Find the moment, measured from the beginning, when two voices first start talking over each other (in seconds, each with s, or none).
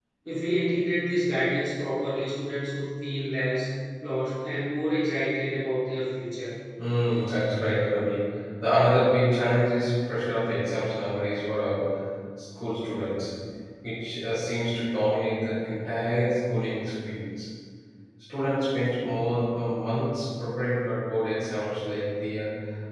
none